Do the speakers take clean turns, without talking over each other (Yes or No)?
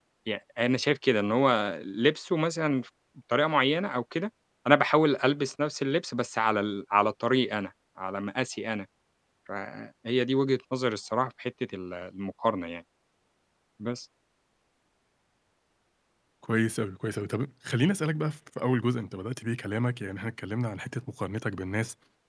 Yes